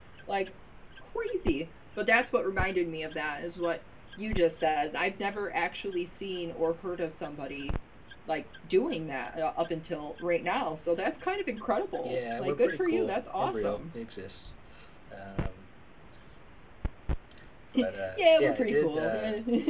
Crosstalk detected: Yes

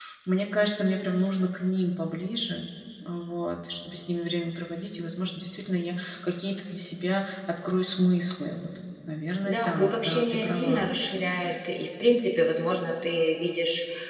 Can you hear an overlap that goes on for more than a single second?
Yes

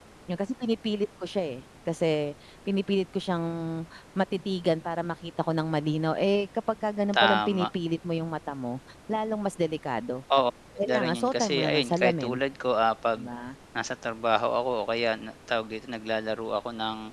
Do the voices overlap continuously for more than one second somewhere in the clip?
Yes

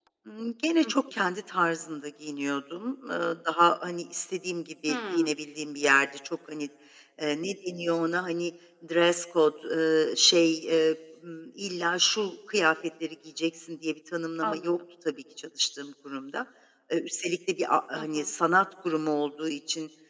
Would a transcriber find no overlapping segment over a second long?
Yes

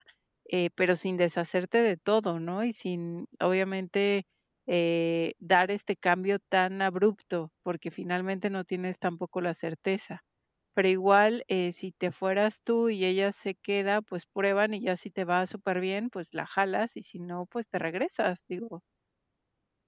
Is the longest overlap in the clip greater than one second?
No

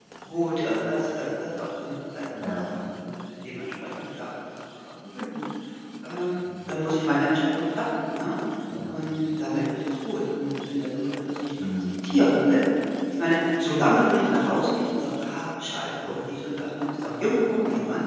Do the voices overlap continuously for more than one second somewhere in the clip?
No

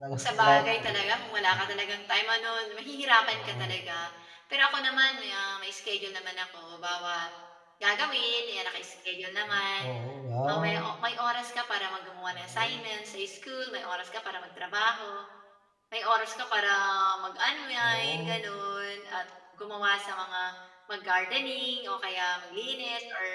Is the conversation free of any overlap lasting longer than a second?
No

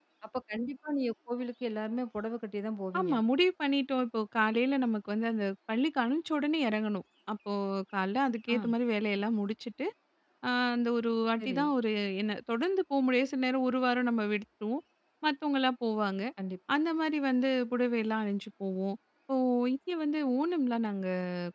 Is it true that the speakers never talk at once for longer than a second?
Yes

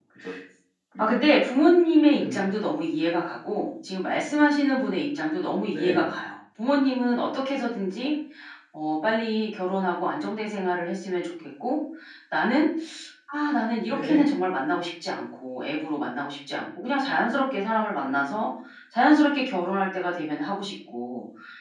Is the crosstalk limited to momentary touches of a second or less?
Yes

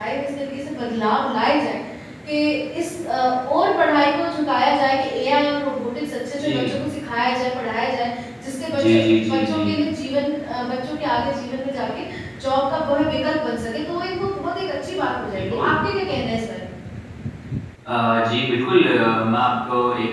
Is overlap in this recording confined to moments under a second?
Yes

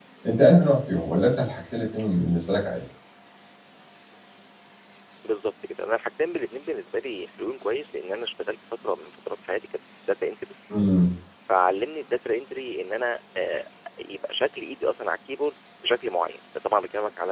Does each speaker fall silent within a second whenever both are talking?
Yes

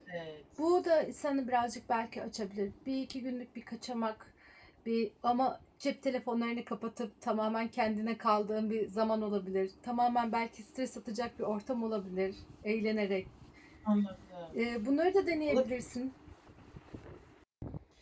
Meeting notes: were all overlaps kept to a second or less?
Yes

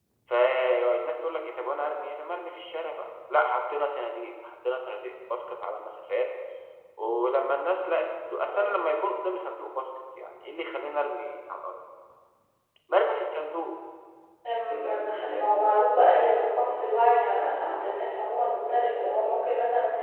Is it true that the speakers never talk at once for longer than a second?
Yes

